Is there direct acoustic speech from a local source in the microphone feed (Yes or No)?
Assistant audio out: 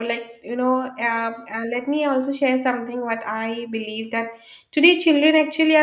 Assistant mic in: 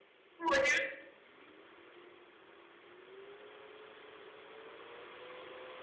Yes